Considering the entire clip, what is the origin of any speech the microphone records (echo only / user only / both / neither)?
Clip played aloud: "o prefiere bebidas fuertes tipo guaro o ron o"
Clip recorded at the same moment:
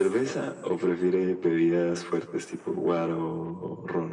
echo only